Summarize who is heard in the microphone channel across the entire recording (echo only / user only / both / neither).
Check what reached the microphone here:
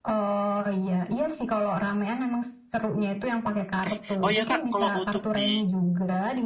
both